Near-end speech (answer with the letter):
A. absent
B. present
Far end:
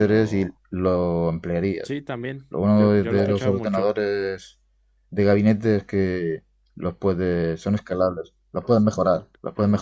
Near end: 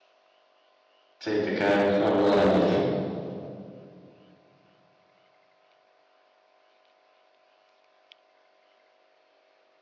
B